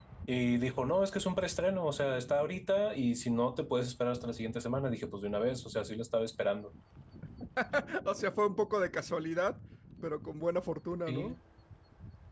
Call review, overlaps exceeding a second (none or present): none